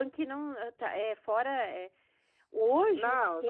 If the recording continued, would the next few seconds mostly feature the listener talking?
Yes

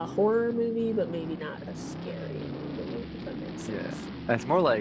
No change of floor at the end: No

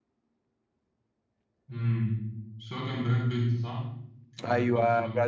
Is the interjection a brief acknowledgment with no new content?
No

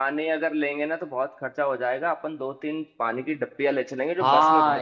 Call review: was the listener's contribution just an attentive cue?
No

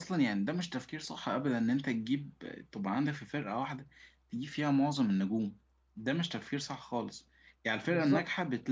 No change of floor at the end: Yes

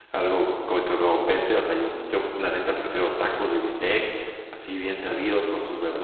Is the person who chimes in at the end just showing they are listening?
Yes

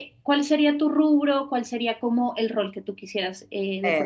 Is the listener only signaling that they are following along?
No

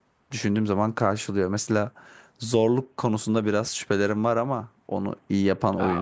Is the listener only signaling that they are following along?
No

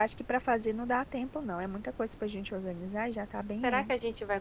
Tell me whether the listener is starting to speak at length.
Yes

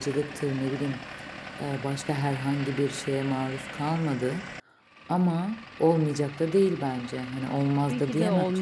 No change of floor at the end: No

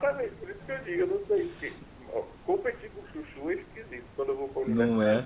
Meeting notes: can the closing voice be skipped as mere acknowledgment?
Yes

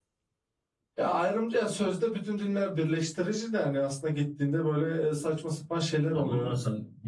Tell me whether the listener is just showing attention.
No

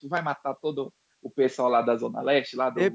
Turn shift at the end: Yes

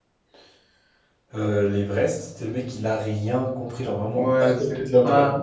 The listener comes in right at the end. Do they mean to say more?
Yes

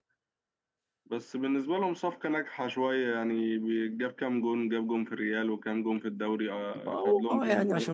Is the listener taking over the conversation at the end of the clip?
Yes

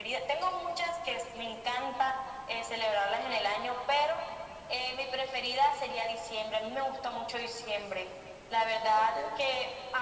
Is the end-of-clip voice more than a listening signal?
No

